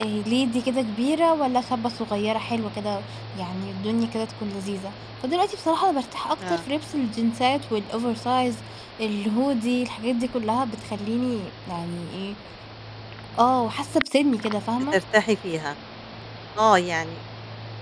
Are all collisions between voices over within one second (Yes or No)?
Yes